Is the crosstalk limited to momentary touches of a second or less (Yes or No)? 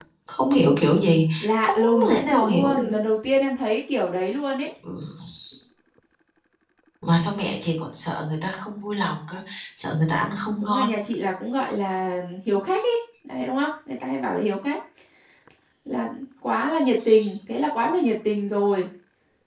No